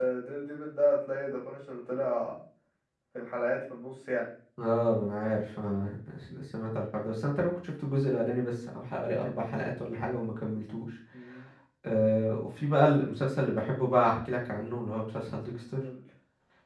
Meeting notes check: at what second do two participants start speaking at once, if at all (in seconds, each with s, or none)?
none